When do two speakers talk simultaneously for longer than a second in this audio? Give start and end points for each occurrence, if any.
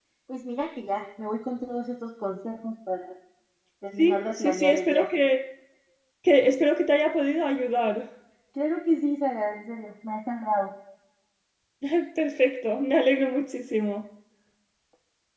4.0-5.3

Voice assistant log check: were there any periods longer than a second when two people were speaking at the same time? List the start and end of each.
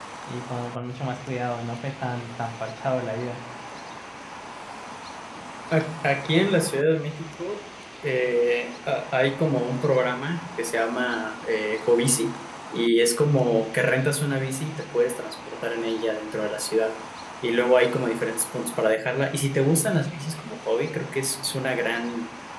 none

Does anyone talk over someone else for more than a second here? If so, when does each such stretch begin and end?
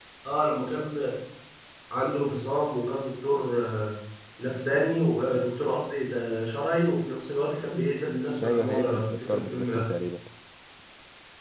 8.4-9.9

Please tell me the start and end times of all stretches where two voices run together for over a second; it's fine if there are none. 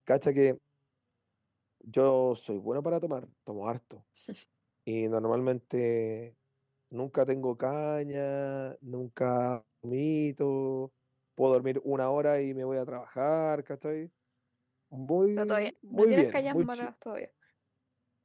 15.4-16.7

